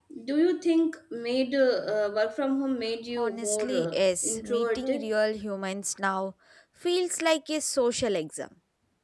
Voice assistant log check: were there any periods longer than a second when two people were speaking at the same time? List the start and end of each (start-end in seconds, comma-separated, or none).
3.2-5.1